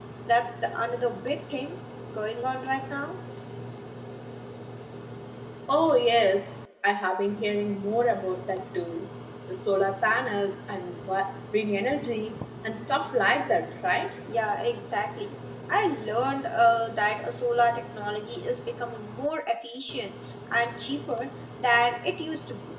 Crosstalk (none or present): none